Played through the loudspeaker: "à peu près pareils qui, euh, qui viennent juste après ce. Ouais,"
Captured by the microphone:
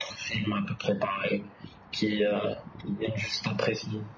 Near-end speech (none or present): none